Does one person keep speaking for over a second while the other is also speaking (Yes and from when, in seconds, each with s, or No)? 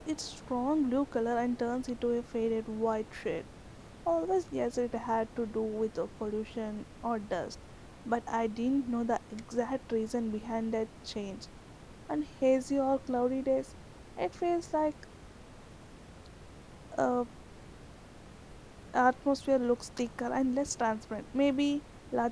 No